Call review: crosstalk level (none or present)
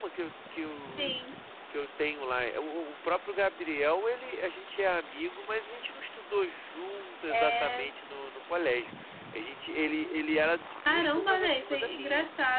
present